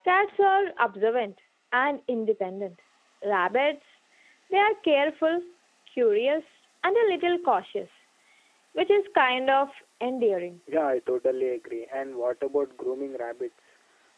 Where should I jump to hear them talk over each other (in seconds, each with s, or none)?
none